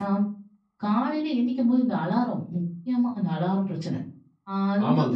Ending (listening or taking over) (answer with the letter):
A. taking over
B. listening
A